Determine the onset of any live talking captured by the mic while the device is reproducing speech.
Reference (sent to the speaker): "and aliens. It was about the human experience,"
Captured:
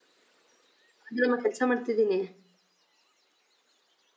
1.1 s

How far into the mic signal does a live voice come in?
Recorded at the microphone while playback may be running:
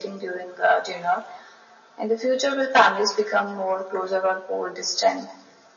none

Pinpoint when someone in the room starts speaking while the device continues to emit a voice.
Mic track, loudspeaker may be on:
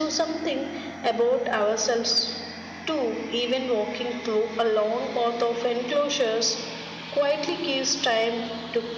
none

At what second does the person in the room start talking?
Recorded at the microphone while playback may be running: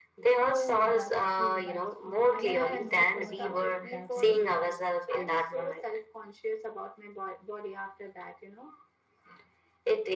0.4 s

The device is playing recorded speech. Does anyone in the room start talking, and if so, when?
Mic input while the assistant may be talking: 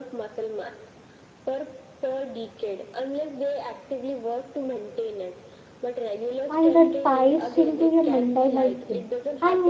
6.5 s

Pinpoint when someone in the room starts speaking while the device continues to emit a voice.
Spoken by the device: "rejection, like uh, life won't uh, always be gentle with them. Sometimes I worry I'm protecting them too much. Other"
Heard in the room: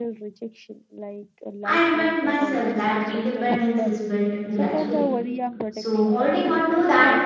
1.6 s

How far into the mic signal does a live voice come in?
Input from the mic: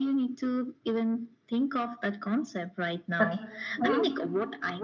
3.2 s

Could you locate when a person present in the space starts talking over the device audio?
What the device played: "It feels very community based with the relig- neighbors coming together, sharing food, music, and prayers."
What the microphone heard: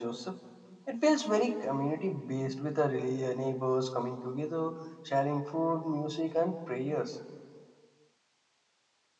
none

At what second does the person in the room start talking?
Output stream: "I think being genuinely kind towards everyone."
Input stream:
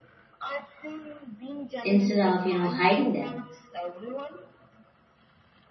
1.8 s

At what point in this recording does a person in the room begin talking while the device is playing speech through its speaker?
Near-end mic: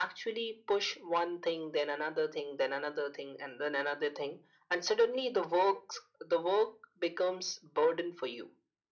none

